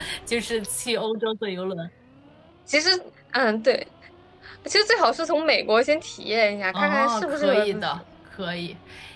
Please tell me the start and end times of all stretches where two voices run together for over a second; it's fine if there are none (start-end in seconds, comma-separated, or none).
6.7-8.0